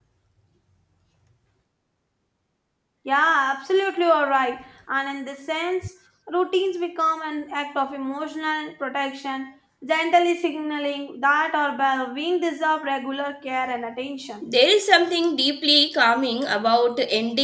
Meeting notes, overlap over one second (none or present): none